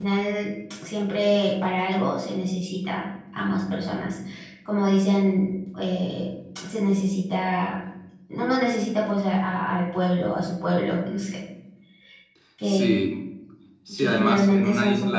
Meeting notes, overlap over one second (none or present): present